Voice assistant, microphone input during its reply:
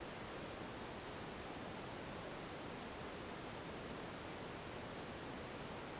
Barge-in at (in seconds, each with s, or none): none